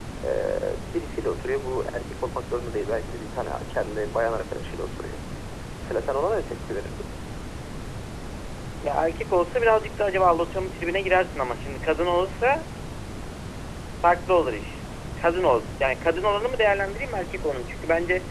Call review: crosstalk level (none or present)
none